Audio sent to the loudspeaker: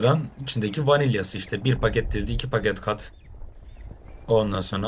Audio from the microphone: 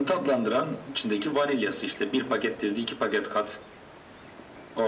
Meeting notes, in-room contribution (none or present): none